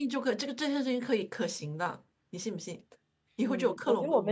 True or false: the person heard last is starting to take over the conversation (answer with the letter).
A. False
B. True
B